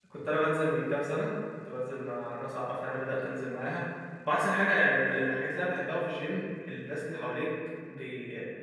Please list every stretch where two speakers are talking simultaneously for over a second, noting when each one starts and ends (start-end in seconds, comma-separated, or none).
none